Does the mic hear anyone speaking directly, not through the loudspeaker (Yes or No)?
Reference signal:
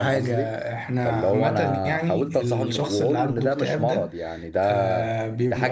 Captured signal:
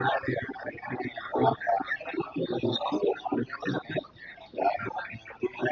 No